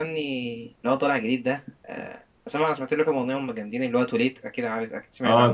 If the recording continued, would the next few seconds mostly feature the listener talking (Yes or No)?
Yes